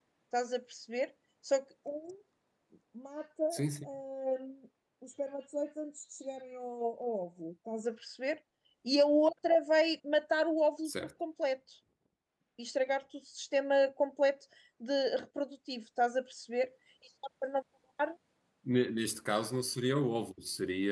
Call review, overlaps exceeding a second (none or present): none